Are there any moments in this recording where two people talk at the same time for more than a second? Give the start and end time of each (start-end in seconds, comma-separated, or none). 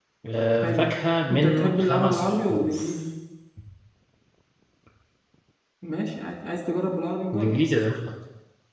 1.3-2.9